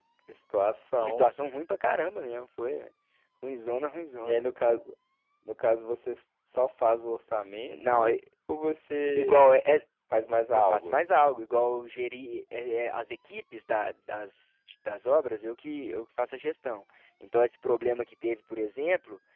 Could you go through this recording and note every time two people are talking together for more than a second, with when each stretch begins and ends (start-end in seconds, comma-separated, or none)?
none